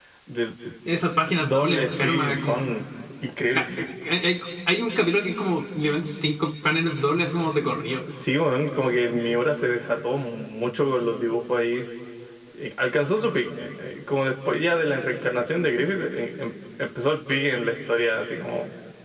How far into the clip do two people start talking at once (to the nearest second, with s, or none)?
1 s